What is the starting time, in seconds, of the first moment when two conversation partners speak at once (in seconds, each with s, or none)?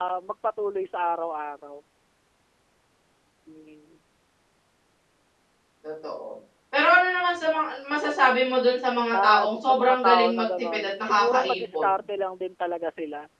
9.1 s